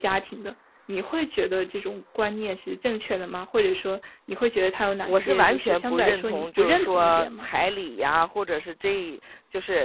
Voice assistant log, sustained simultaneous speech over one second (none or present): present